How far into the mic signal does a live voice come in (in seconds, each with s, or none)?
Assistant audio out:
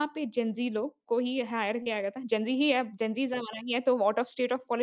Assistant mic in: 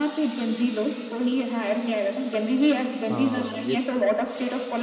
3.1 s